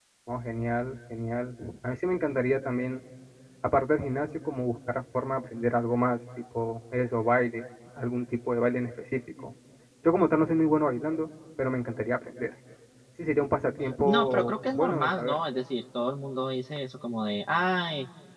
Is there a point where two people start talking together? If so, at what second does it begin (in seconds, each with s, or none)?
14.0 s